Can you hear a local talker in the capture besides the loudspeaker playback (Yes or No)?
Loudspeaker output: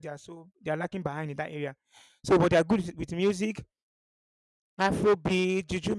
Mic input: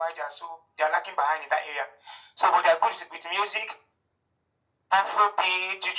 No